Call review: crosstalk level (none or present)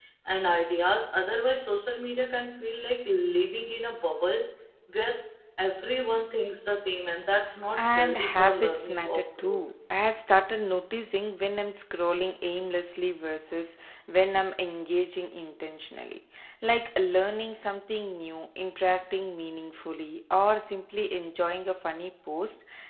present